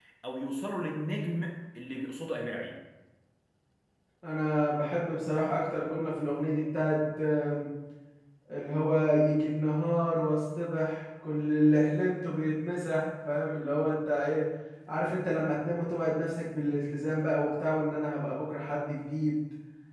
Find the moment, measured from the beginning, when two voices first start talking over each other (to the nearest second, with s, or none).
none